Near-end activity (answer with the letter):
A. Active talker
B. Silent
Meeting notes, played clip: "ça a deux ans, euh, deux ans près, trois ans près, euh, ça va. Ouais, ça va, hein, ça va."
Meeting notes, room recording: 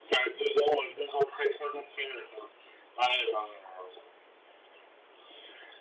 B